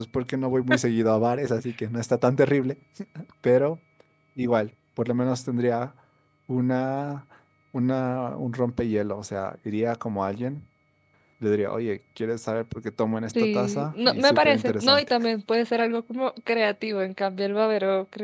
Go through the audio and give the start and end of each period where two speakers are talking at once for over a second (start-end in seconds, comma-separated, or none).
13.3-15.1